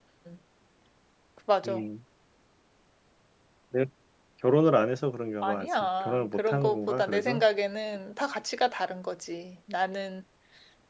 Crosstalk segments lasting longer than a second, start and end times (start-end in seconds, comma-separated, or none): 5.4-7.4